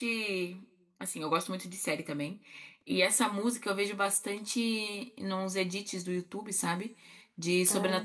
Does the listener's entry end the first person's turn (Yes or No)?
No